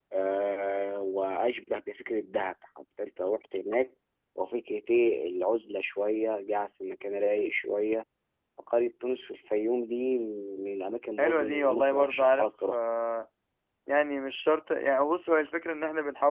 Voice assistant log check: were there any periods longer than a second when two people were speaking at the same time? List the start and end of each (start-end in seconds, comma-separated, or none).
11.2-12.8